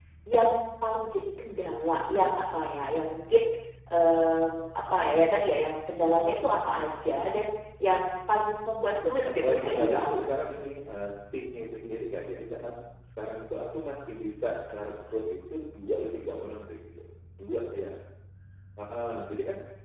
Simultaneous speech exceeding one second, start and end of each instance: 9.2-10.5

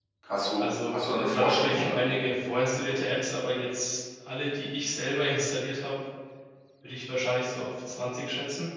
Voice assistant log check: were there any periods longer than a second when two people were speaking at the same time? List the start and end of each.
0.6-1.8

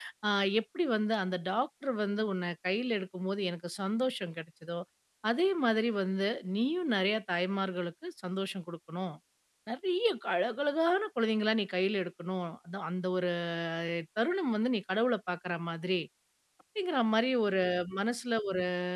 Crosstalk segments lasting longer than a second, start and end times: none

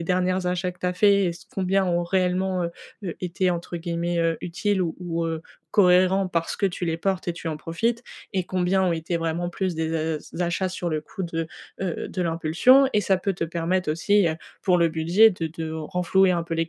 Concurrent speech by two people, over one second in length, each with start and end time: none

